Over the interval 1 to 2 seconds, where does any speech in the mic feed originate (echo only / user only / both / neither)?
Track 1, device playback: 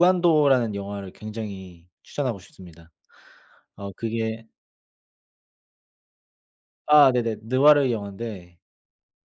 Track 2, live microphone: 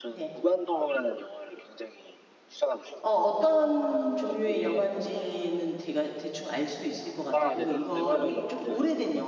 echo only